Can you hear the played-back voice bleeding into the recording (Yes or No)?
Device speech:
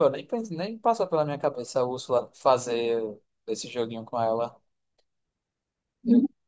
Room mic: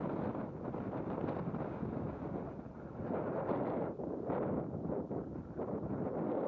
No